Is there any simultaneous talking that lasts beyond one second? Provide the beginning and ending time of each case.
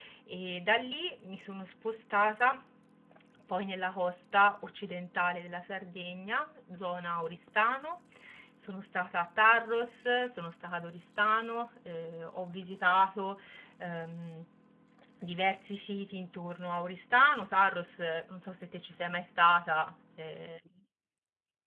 none

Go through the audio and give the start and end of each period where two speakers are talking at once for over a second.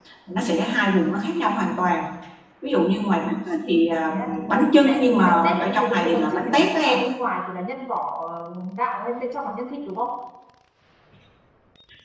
4.8-7.0

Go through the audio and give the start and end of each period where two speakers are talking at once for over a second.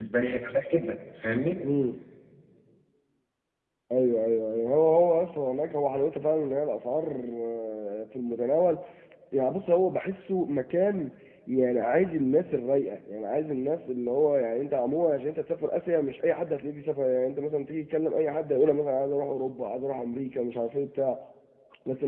none

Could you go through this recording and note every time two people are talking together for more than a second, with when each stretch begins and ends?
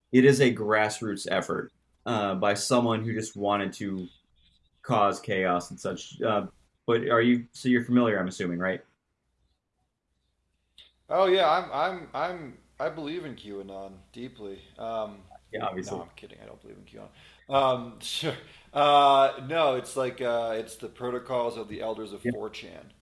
none

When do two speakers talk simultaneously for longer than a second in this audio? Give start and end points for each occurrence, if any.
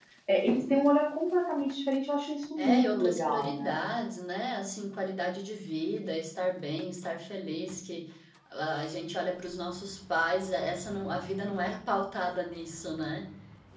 2.6-3.8

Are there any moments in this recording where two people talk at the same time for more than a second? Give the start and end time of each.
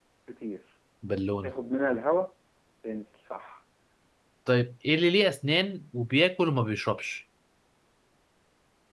none

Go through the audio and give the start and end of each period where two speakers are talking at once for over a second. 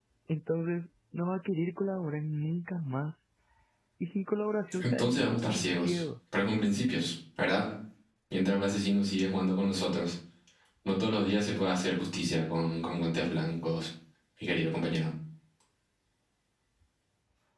4.8-6.0

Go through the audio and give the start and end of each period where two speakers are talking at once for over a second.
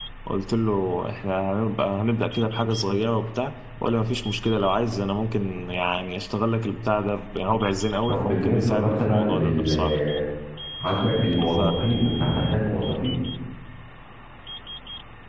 8.1-10.0

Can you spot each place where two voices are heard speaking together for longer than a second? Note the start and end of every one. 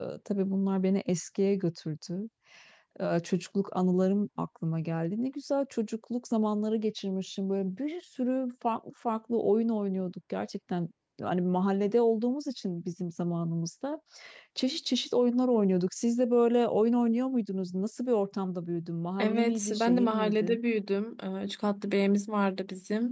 19.2-20.6

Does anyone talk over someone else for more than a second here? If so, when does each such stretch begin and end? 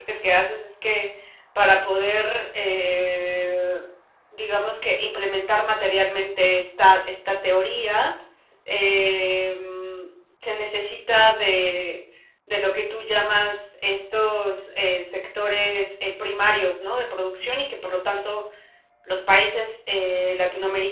none

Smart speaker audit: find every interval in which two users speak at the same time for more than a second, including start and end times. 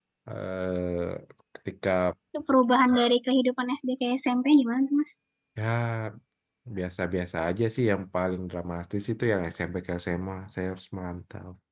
none

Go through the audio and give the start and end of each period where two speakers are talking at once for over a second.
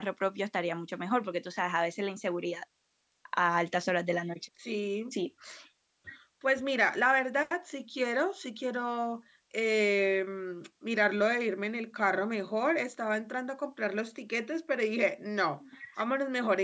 none

